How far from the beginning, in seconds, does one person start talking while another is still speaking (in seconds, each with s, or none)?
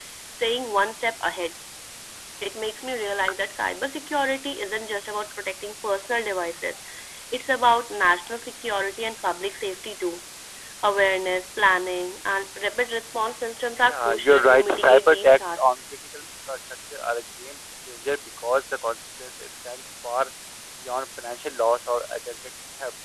13.9 s